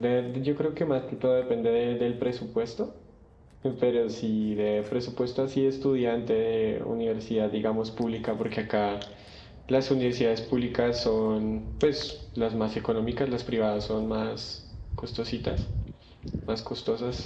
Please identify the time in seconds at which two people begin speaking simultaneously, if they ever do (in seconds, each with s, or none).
none